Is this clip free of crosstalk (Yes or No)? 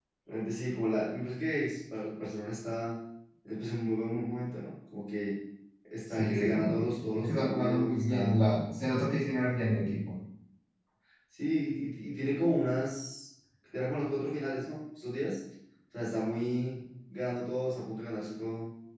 No